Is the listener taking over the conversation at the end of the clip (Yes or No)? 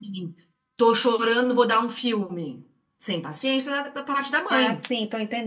Yes